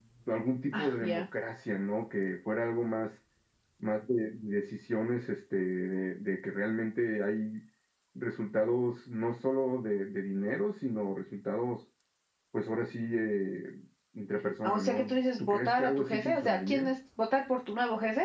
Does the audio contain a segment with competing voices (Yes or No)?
Yes